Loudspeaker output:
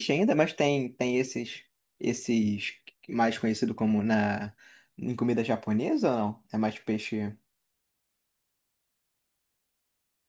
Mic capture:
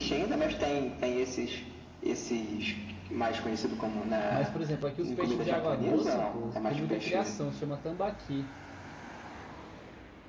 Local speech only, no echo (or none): Mas, por exemplo, aqui os peixes de água doce, pô, tem muita criação, se chama tambaqui.